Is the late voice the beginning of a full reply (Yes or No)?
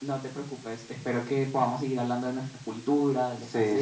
Yes